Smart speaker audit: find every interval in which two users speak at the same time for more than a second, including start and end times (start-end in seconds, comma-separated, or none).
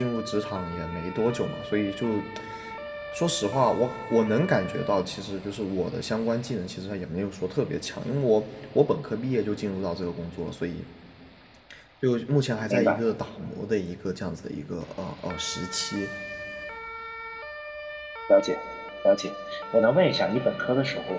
none